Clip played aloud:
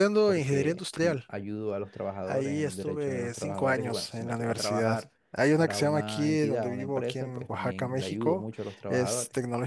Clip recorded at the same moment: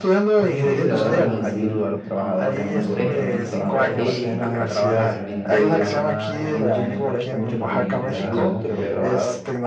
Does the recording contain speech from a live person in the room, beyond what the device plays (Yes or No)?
Yes